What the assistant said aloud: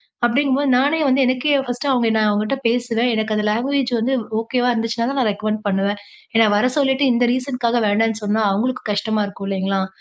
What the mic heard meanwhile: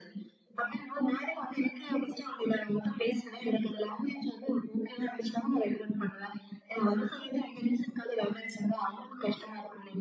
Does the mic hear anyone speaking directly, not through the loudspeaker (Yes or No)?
No